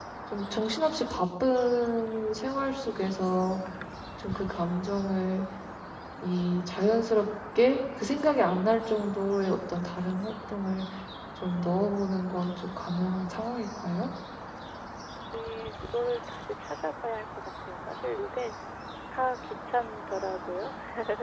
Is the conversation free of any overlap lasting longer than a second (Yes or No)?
Yes